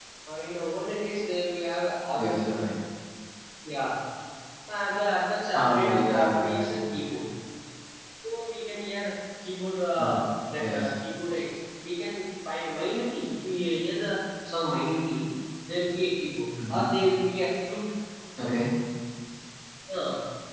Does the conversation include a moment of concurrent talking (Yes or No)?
Yes